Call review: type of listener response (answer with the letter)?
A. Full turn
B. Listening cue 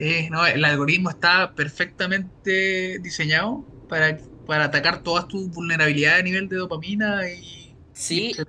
A